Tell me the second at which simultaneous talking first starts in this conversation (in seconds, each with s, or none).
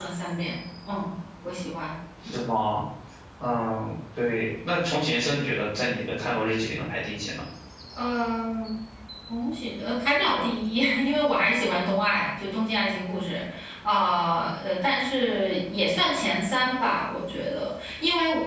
none